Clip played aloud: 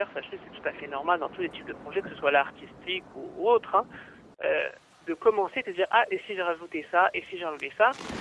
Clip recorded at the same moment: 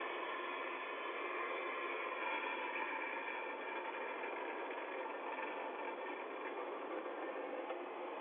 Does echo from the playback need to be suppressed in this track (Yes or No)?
No